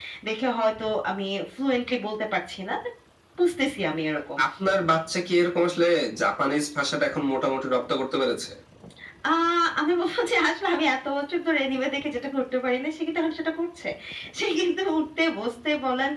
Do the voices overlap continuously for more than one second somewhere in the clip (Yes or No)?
No